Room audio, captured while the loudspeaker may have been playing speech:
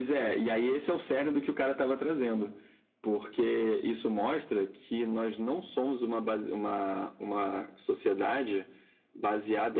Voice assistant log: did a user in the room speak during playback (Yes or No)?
No